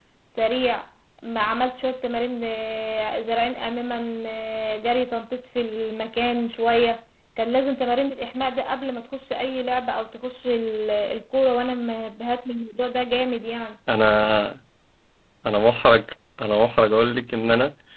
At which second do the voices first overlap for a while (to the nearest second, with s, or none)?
none